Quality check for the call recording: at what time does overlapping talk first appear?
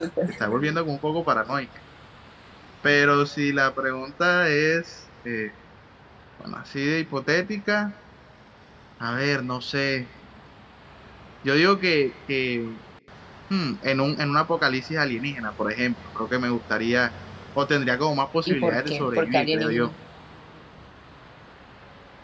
18 s

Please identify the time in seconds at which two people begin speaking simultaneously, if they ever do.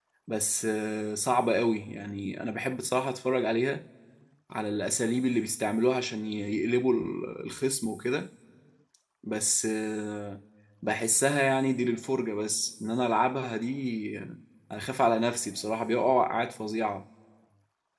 none

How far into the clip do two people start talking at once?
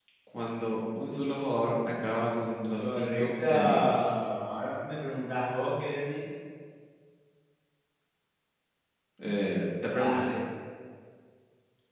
3 s

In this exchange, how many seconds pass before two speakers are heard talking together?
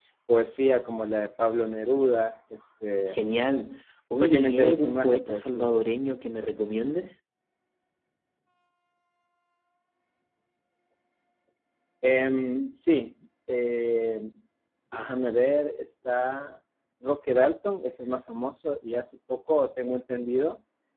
4 s

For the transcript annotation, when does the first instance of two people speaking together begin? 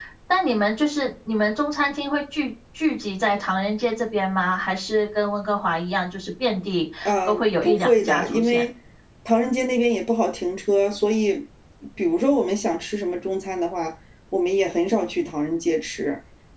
7 s

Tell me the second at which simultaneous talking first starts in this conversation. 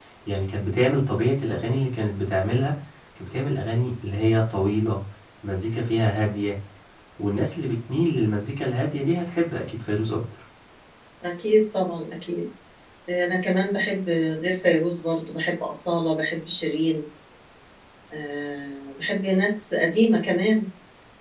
none

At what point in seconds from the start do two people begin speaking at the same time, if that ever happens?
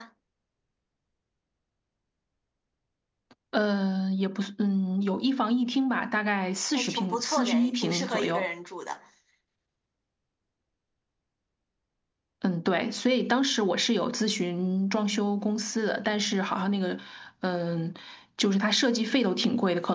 7 s

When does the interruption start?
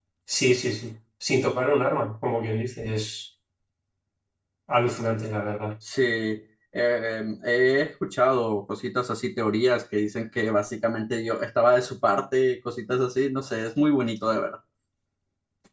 none

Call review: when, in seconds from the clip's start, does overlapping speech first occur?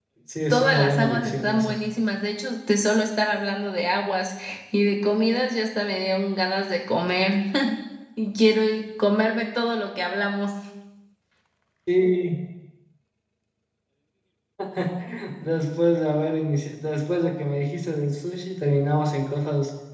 1 s

